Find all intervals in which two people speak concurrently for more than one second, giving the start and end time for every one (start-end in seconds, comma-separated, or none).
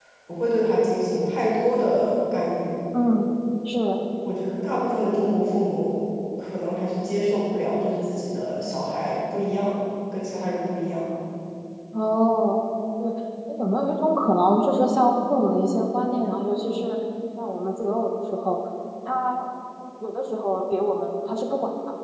none